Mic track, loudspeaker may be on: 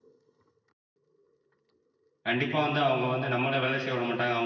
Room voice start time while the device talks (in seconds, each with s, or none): 2.3 s